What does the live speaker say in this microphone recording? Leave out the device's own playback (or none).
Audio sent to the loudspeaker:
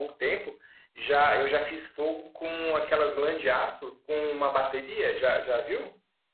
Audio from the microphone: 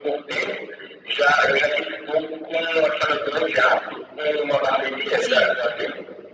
Sim.